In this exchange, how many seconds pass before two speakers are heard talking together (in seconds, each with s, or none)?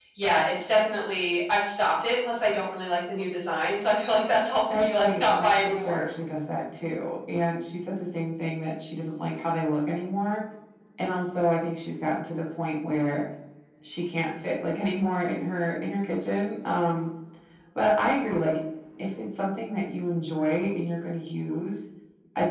4.7 s